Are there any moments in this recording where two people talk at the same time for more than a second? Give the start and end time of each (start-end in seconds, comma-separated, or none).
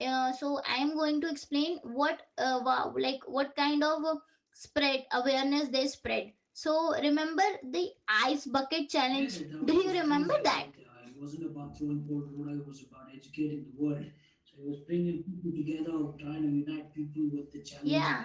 9.1-10.6